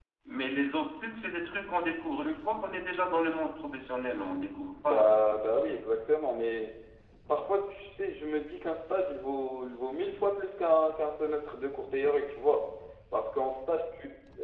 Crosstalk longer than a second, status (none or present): none